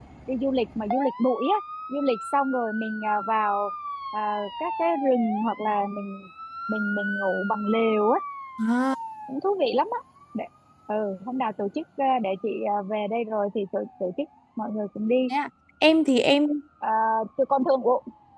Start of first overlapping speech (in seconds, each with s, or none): none